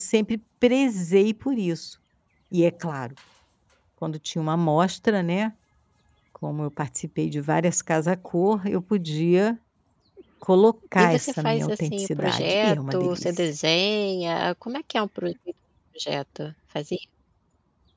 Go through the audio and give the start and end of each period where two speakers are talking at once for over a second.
11.0-13.3

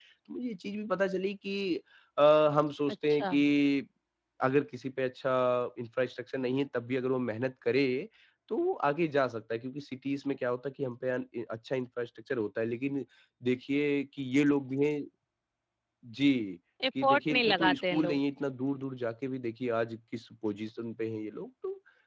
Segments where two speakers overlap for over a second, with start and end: 17.0-18.2

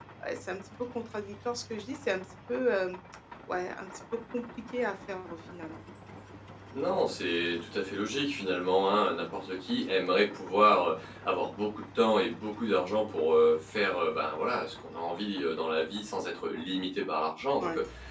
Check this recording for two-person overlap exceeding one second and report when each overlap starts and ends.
none

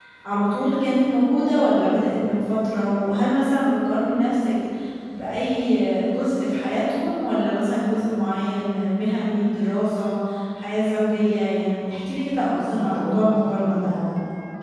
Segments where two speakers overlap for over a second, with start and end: 12.5-13.9

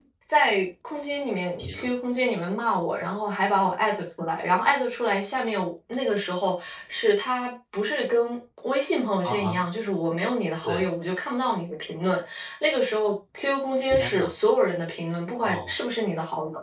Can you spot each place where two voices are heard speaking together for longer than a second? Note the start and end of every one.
none

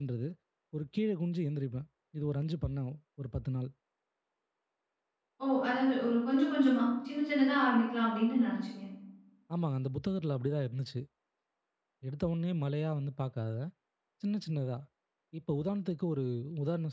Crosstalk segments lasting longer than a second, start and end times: none

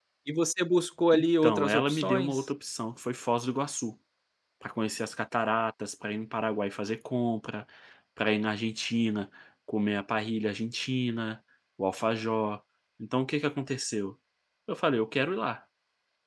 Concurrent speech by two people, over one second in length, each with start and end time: 1.1-2.5

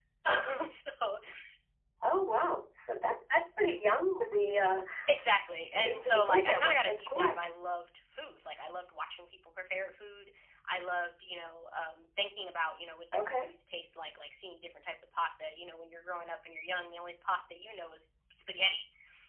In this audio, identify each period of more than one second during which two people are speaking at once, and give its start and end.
5.7-7.4

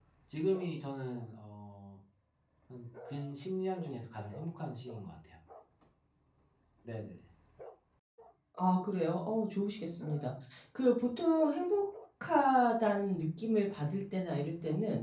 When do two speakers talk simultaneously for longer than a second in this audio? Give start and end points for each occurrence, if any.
none

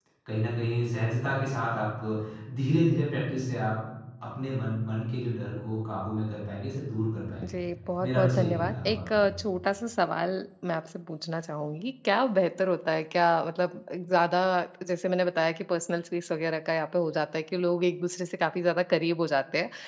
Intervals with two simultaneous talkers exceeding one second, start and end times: 8.0-9.2

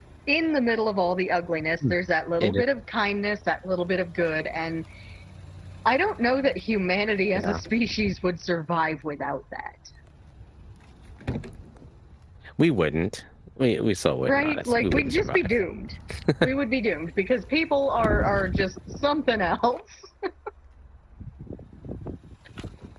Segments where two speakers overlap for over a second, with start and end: 14.2-15.5

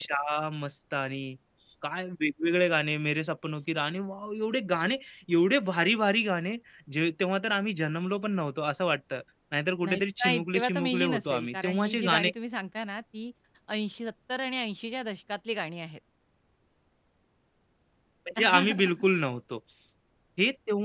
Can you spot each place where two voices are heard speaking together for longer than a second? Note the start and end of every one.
9.8-12.3

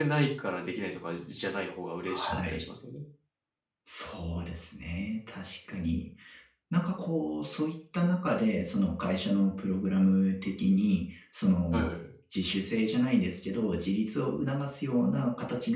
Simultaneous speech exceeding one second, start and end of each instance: none

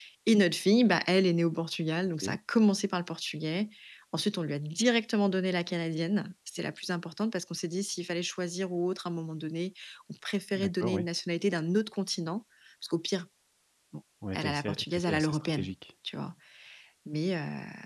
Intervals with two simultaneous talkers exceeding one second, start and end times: 14.3-15.7

